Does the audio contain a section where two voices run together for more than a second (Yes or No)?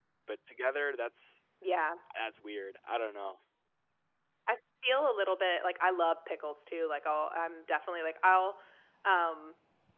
No